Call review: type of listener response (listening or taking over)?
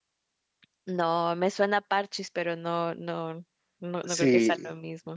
taking over